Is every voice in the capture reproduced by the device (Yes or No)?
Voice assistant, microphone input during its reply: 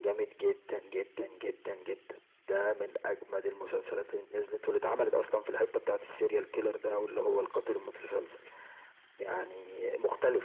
Yes